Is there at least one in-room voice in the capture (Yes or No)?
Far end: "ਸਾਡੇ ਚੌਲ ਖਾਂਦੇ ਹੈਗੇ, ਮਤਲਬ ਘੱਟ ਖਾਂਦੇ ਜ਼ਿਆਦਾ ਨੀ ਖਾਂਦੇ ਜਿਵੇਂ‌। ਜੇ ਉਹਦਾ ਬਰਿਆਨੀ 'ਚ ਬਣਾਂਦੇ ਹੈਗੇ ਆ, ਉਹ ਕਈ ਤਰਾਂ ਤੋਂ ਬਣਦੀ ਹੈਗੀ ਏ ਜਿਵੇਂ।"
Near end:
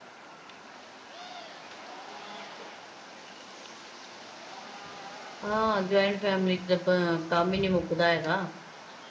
Yes